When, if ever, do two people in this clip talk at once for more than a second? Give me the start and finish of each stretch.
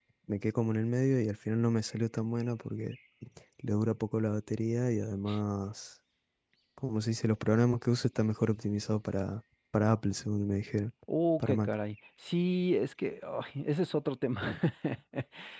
none

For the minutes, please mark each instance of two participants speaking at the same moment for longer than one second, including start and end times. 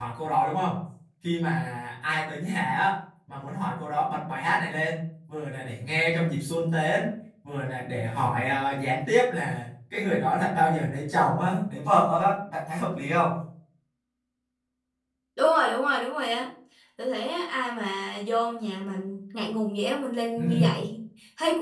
none

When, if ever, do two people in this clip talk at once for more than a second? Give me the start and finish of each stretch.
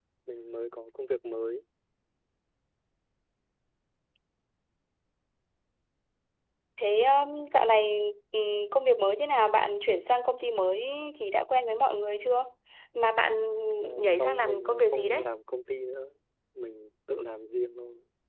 14.0-15.2

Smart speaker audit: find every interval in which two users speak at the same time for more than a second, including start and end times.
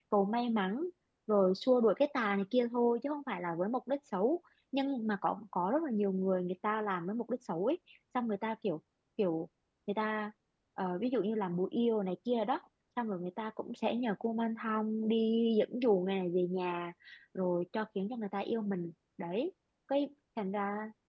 none

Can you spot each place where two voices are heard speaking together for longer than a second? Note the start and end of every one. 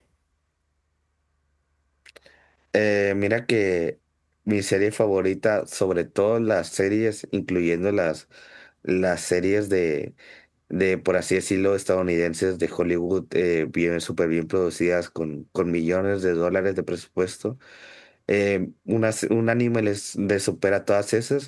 none

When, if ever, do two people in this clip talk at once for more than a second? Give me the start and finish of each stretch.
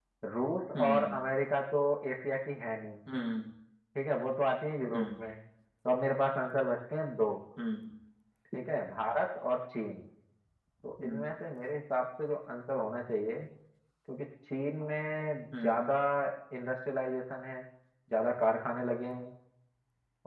none

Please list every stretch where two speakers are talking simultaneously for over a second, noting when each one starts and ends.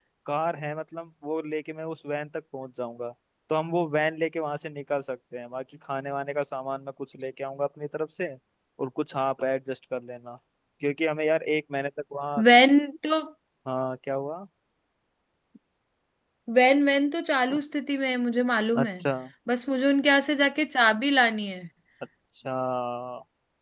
none

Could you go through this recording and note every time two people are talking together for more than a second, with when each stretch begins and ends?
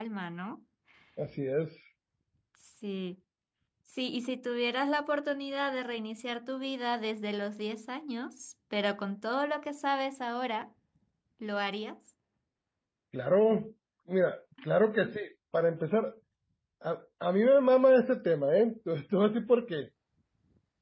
none

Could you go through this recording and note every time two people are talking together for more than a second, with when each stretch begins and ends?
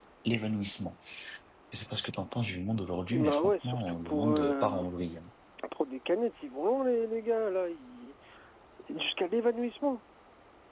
3.1-4.7

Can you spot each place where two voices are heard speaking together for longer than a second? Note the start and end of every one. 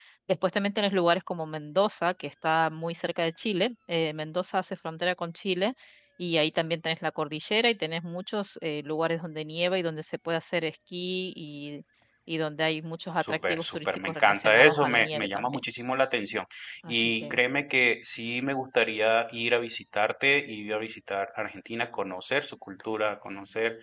13.2-15.6

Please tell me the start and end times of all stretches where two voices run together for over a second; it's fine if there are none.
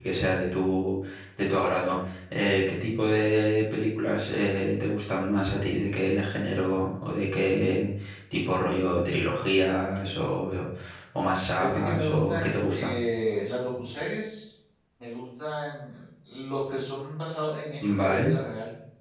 11.6-12.9

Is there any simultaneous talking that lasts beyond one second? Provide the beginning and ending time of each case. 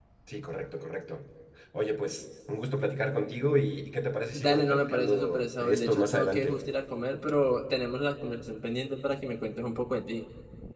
4.3-6.6

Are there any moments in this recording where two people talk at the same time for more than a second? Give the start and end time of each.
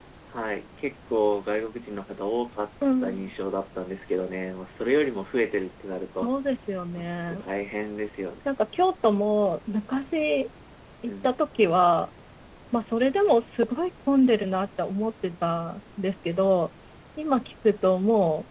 none

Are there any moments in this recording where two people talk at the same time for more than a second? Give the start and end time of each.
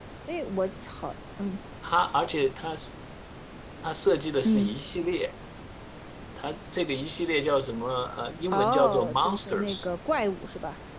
8.5-9.9

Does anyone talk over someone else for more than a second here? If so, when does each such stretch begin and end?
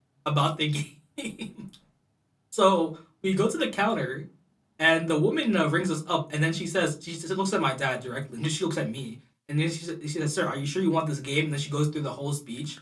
none

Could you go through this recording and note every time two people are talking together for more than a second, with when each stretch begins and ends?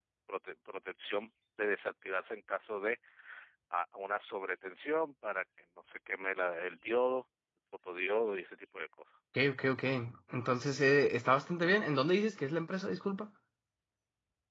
none

